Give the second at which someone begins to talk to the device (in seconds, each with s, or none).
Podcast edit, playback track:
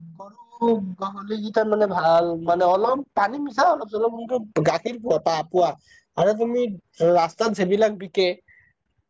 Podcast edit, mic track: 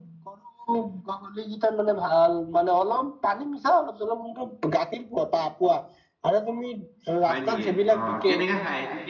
7.2 s